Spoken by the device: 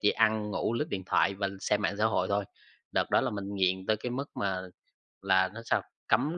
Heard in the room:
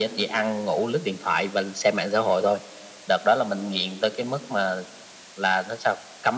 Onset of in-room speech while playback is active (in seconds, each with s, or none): none